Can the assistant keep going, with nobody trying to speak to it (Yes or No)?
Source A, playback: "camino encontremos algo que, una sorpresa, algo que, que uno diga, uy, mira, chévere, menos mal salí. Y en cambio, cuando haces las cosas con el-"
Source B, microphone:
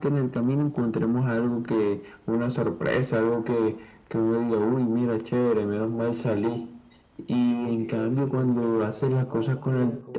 No